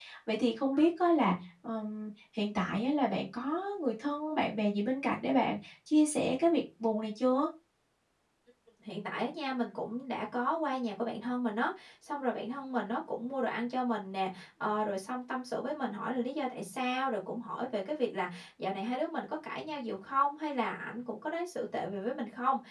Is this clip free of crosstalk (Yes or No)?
Yes